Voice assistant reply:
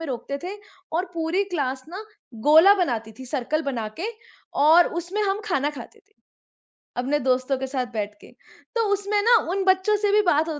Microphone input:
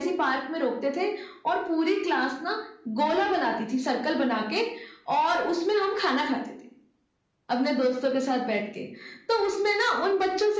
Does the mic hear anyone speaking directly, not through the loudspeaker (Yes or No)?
No